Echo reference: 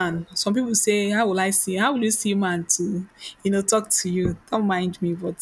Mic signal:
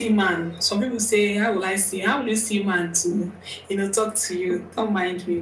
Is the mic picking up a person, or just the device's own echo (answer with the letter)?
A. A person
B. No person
B